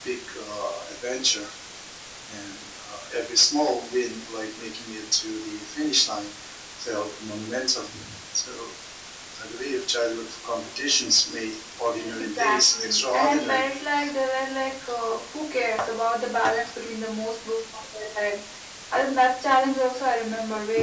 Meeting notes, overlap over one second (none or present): present